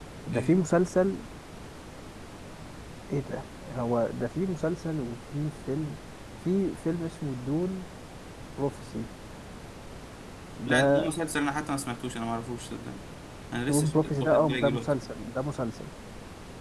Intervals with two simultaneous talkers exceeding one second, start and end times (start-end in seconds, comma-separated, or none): 13.7-14.9